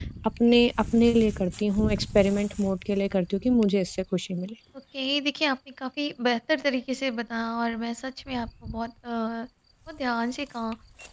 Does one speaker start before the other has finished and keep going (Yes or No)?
No